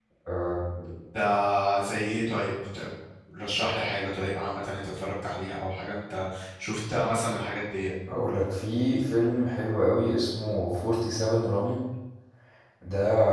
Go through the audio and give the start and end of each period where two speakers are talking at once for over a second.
none

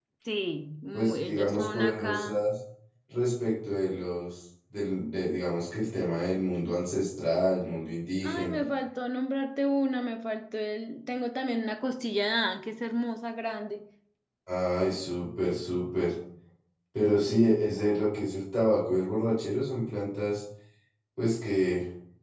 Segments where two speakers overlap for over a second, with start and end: 0.9-2.4

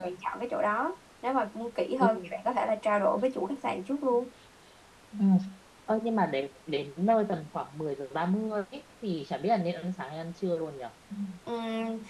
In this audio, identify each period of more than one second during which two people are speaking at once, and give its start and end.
none

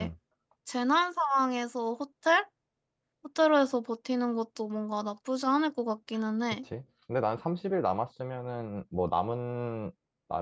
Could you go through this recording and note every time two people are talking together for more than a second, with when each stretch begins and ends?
none

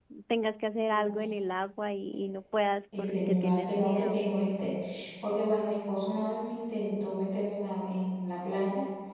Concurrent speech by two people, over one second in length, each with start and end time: 3.0-4.2

